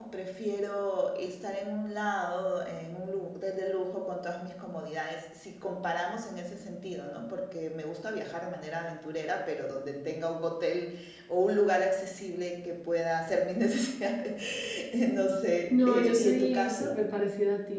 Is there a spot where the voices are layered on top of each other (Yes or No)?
Yes